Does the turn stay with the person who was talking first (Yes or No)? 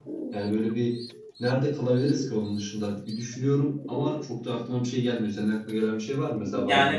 No